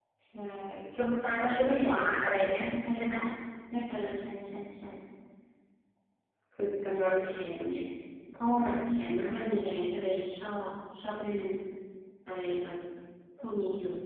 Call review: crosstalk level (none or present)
present